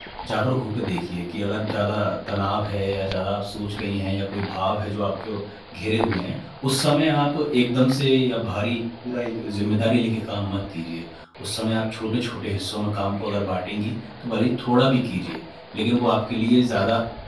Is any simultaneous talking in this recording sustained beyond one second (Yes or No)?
No